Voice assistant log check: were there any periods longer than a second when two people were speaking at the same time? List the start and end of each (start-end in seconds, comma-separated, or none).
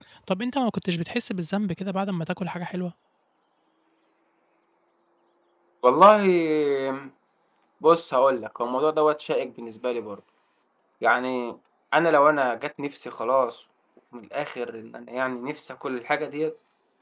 none